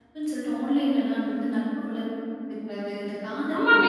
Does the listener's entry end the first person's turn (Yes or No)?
Yes